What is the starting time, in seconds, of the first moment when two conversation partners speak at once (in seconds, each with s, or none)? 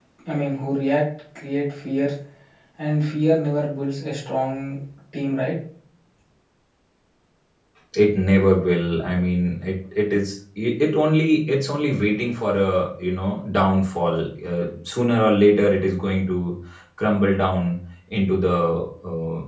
none